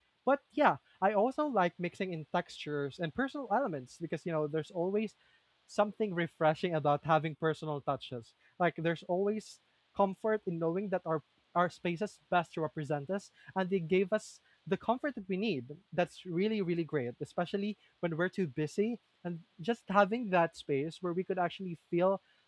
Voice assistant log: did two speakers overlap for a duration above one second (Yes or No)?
No